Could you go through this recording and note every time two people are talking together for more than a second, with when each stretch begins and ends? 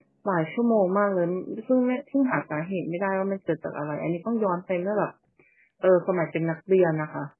none

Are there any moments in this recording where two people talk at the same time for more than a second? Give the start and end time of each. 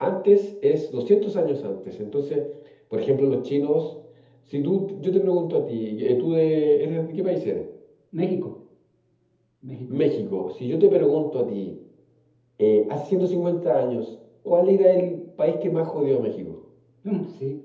none

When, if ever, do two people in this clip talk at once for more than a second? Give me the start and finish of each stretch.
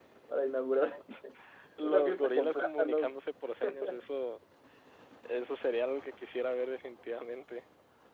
1.8-3.1

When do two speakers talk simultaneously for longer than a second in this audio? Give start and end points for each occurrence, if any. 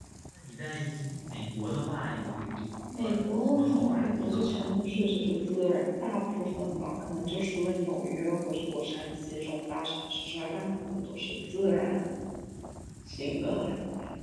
3.0-4.6

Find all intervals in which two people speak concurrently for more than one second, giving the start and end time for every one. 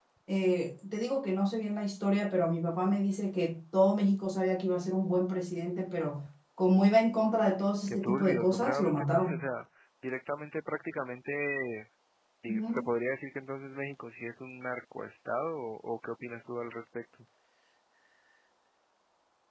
7.9-9.4

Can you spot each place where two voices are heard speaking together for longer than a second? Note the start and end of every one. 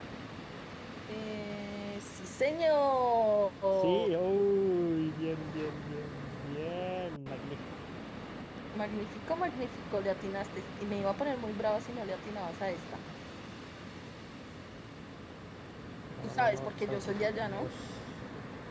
16.2-17.7

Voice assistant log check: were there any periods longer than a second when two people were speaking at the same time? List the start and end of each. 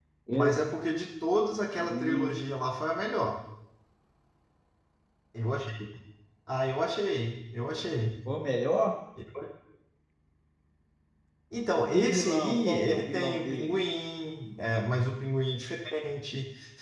11.9-13.8

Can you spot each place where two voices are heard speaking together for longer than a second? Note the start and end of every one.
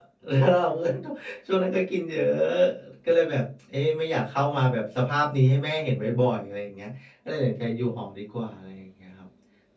none

